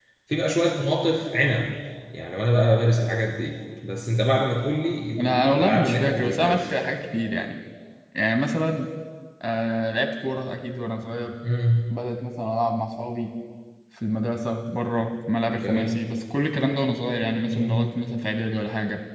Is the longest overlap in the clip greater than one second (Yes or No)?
Yes